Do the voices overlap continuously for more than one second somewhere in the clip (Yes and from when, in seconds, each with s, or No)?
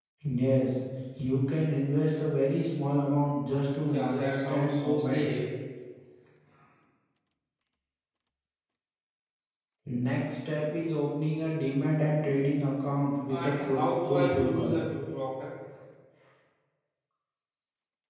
Yes, from 3.8 s